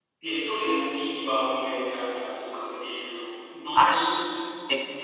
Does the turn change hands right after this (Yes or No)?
Yes